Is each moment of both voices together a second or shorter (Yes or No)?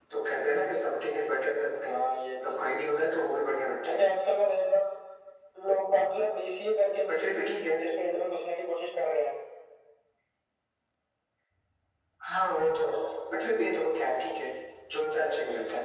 Yes